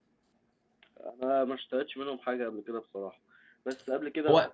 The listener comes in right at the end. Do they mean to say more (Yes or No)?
No